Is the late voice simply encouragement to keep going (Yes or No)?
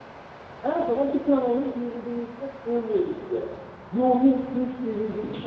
No